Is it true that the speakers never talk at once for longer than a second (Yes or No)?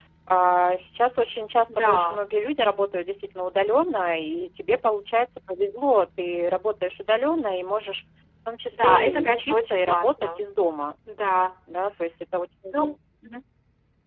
No